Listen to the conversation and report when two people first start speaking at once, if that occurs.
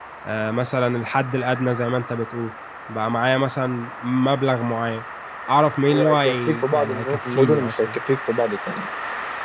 5.9 s

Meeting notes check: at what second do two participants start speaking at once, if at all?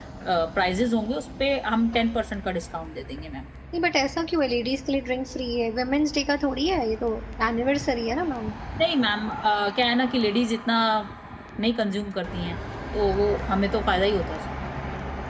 none

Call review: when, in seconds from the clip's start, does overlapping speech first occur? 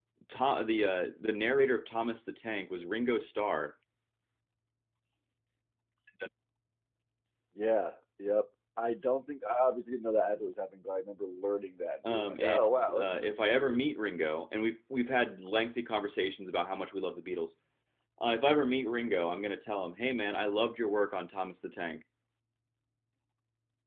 12.0 s

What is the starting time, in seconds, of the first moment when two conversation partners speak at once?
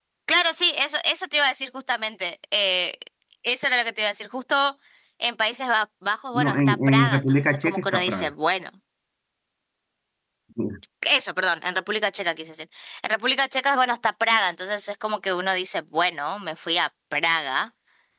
6.3 s

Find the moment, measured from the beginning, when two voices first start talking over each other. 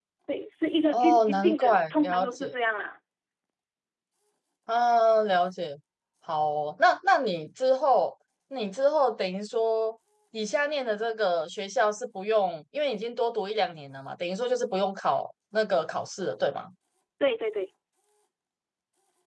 0.9 s

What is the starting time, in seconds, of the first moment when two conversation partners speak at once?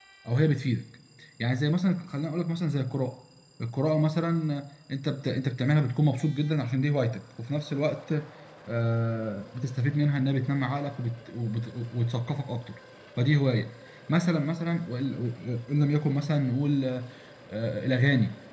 none

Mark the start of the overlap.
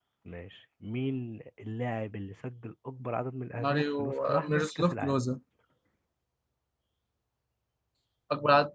3.6 s

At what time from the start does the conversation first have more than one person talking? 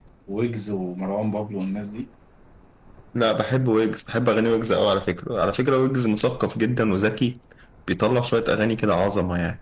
none

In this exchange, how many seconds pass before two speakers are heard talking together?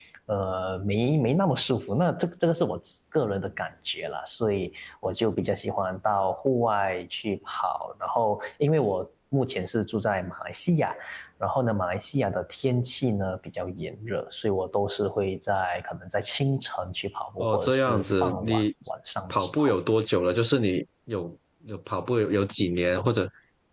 17.4 s

